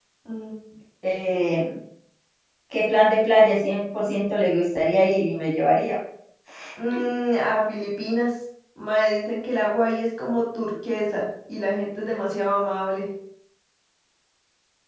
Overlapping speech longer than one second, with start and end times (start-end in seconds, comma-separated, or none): none